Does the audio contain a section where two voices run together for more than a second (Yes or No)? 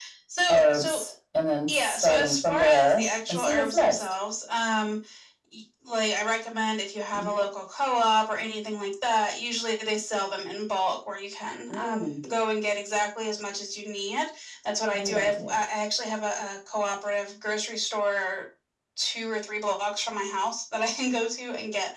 Yes